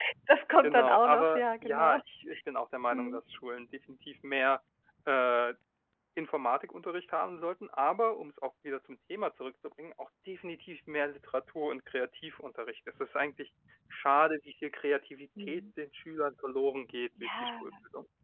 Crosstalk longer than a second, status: present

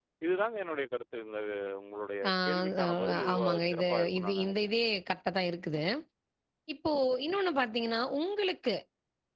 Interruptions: present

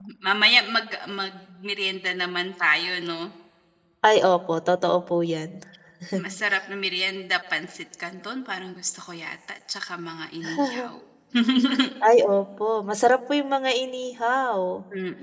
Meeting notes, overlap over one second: none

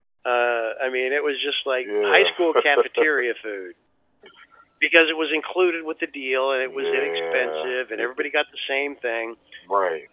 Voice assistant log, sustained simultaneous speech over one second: present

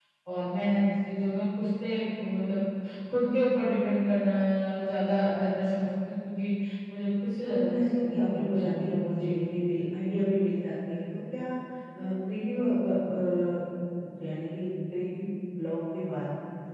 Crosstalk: present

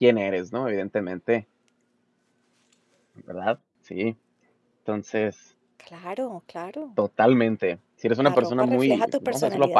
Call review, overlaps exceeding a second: present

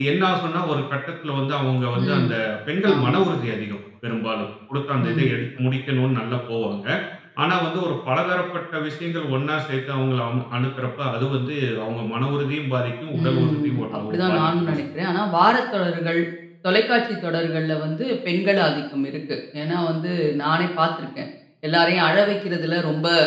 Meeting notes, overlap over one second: present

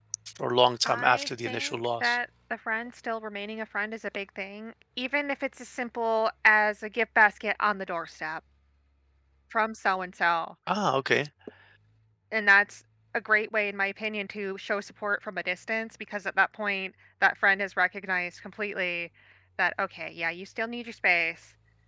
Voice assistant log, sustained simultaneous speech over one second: present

